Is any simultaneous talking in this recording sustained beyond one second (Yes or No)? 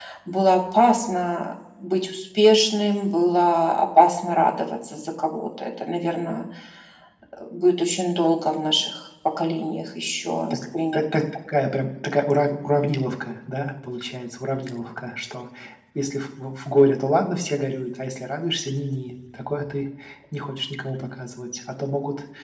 No